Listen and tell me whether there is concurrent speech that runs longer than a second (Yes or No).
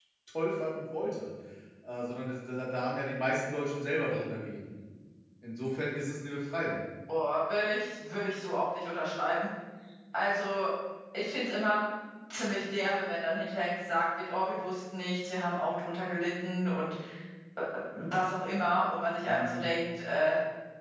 No